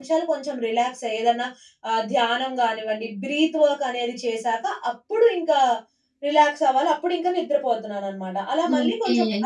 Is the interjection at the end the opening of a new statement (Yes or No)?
Yes